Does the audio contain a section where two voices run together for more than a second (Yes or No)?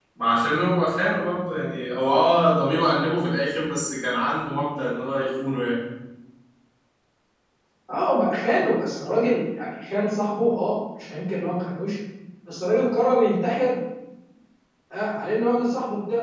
No